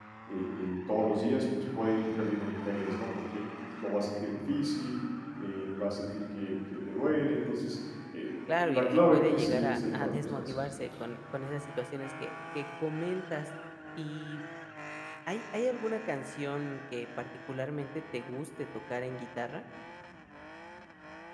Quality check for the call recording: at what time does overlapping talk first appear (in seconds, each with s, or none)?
8.5 s